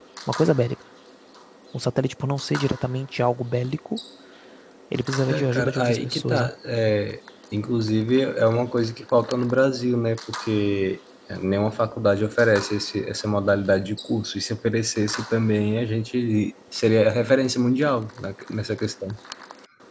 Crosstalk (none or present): present